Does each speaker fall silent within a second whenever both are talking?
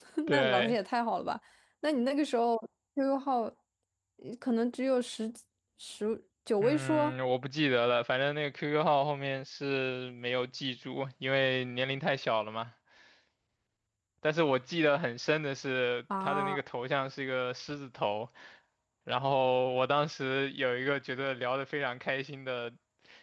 Yes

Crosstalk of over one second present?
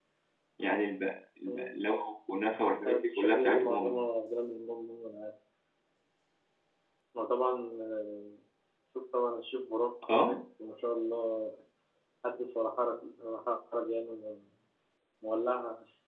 Yes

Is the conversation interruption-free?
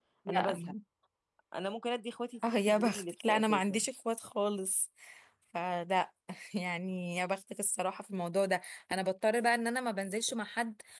No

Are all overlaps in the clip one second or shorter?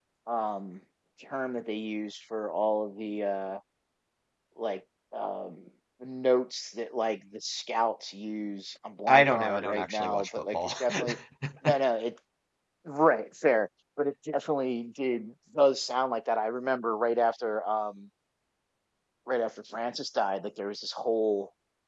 No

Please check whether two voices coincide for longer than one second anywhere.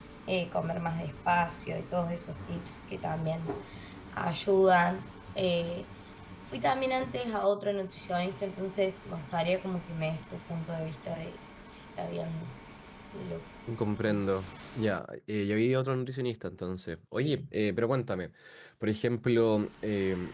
No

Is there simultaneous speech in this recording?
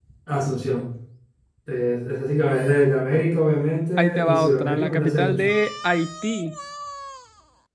Yes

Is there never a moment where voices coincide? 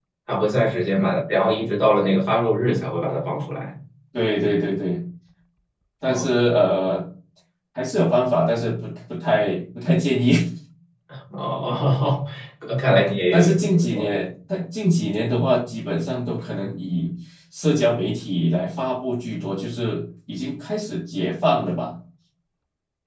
No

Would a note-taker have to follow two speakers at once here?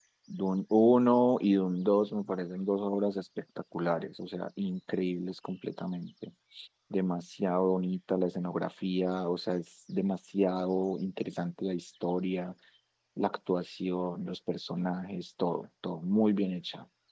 No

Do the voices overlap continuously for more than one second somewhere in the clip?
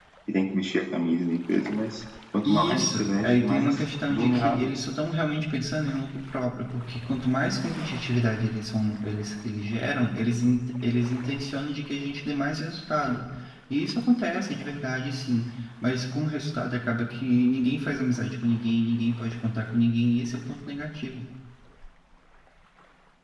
Yes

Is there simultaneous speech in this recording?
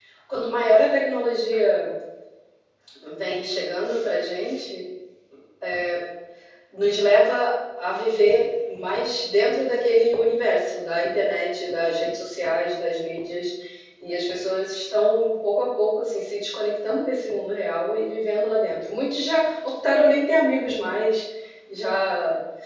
No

